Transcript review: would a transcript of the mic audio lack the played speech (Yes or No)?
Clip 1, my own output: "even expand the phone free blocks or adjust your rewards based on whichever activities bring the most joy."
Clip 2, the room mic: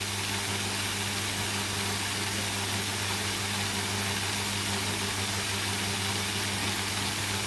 Yes